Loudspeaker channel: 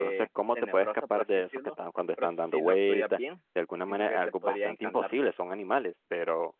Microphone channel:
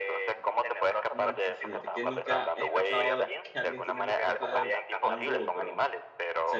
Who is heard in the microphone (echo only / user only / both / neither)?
both